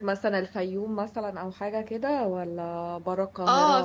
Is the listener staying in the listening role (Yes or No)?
No